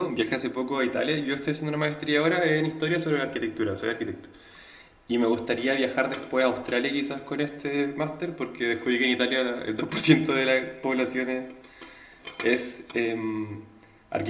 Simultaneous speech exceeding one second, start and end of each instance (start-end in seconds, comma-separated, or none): none